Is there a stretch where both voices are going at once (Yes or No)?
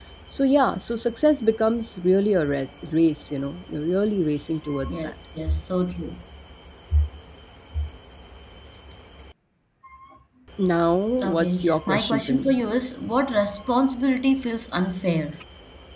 Yes